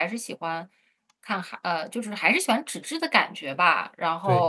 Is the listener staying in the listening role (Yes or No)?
Yes